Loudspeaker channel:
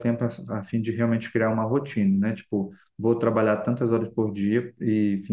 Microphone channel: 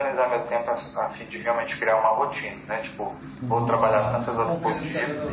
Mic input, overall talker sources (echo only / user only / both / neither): both